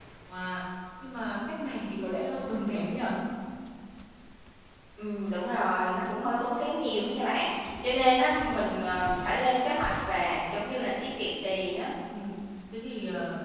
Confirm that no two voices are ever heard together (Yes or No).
Yes